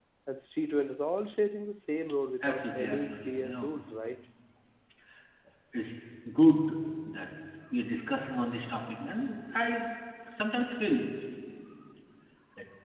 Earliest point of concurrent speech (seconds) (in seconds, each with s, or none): 2.4 s